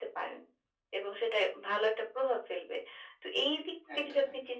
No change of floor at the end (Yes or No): Yes